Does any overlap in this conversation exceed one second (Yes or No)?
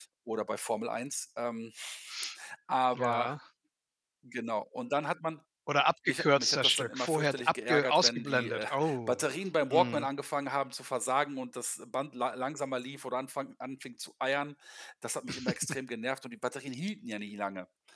Yes